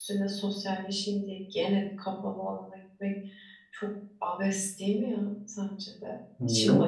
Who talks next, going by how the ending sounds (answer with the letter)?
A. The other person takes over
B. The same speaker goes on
A